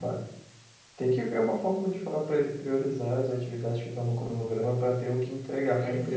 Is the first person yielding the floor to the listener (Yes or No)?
Yes